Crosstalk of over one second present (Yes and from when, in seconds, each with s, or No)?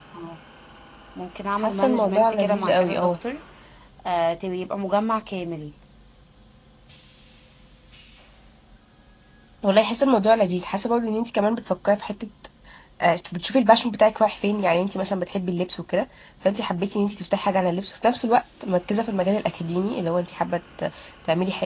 Yes, from 1.6 s